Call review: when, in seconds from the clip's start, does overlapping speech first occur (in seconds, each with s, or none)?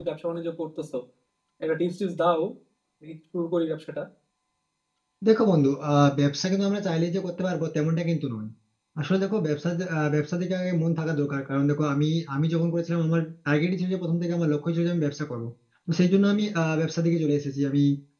none